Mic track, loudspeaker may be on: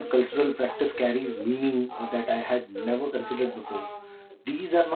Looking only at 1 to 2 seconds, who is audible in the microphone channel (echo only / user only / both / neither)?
both